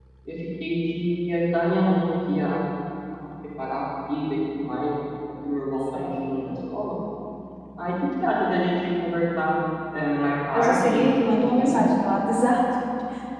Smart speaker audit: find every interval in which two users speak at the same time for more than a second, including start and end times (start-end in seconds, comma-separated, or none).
10.5-11.8